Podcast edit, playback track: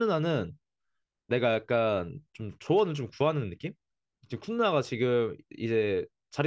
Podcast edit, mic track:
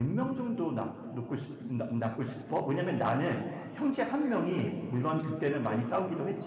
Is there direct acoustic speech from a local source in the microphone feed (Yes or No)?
Yes